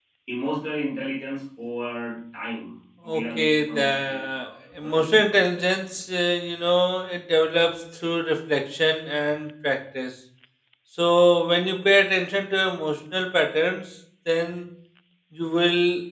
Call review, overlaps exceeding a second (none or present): present